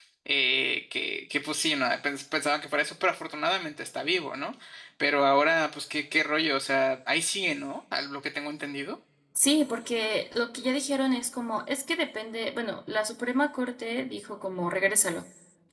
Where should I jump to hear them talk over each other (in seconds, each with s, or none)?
none